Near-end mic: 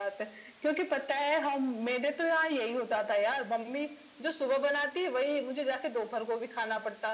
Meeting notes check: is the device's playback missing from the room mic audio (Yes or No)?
No